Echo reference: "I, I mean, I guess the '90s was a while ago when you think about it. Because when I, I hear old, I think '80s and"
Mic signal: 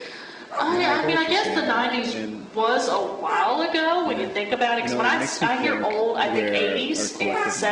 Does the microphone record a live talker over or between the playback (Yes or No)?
Yes